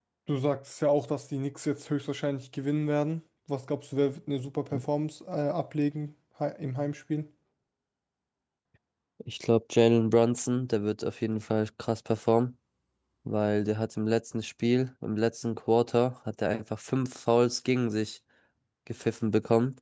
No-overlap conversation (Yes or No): Yes